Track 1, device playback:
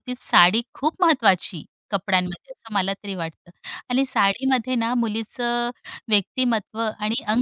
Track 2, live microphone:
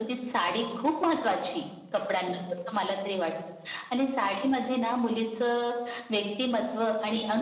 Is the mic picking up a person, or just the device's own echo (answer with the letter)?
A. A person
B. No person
B